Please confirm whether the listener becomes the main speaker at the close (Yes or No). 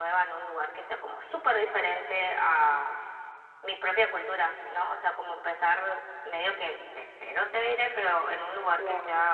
No